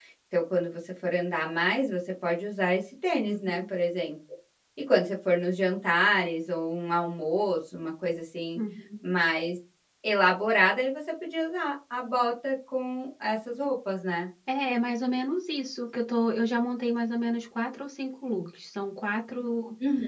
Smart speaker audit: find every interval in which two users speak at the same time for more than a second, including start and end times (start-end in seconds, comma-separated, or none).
none